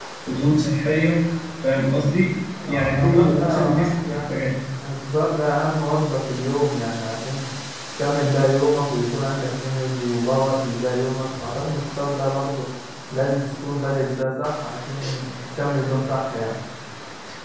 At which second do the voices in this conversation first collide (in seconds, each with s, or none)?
2.6 s